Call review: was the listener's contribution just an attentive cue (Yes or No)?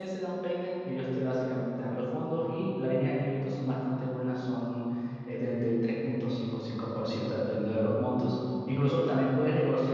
Yes